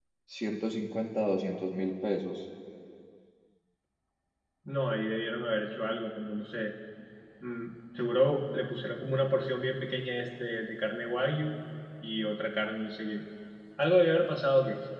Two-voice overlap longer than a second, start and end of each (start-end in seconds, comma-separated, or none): none